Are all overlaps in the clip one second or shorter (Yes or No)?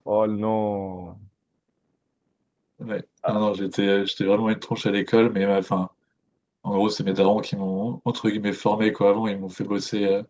Yes